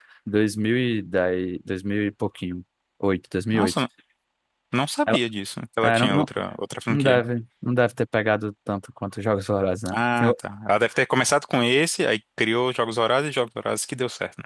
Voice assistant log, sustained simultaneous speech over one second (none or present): none